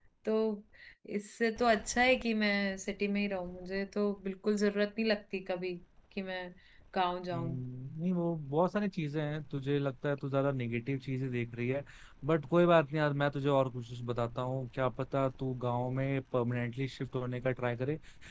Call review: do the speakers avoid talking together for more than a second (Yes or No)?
Yes